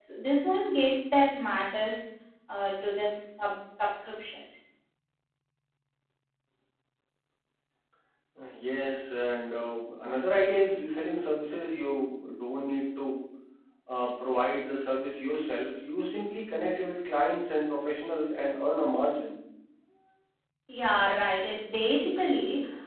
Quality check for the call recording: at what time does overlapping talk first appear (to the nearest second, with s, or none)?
none